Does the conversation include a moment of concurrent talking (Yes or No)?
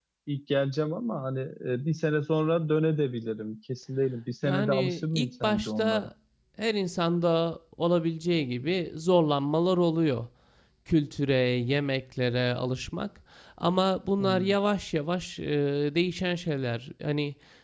Yes